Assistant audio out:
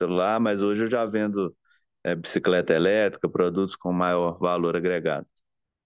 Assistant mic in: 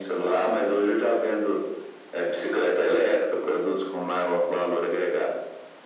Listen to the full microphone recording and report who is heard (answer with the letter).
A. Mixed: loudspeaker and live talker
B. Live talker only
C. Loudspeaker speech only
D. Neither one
C